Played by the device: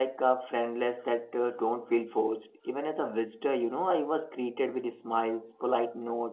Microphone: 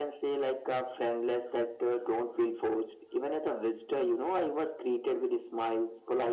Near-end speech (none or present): none